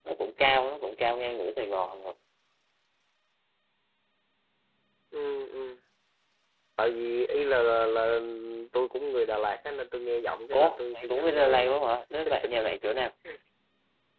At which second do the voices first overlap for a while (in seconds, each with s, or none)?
10.5 s